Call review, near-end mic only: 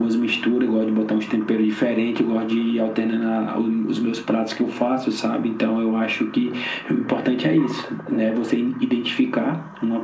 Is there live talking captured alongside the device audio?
No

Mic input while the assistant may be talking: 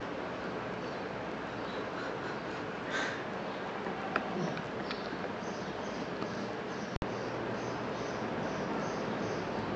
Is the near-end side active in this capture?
No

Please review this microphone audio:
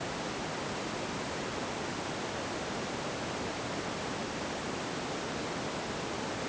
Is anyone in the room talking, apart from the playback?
No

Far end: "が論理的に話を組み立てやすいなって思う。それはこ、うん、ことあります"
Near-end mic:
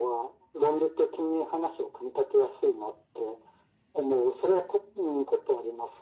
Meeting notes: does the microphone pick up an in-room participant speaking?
No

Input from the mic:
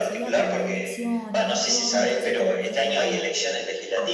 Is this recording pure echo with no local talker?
No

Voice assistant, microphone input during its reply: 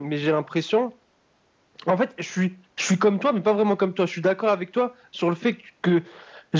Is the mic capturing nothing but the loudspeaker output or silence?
Yes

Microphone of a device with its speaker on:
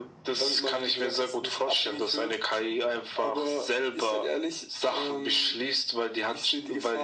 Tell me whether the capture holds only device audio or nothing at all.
Yes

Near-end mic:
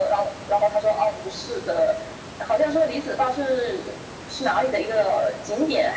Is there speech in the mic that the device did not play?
No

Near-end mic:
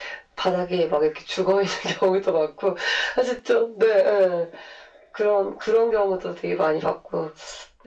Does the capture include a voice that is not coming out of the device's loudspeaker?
No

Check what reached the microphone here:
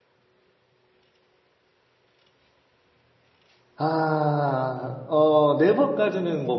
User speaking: Yes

